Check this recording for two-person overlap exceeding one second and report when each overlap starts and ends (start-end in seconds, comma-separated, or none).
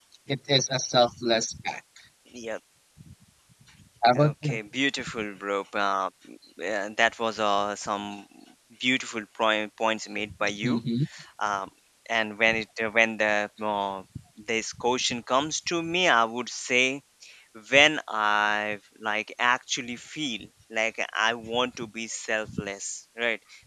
none